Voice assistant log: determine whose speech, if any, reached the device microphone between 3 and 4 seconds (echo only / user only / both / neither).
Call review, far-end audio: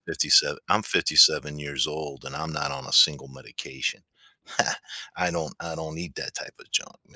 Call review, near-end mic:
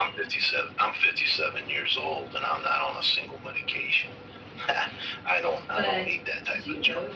echo only